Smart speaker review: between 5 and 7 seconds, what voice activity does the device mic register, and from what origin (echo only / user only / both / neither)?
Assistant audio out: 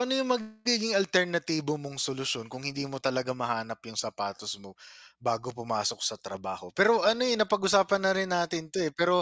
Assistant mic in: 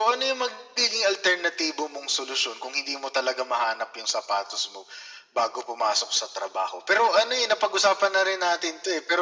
echo only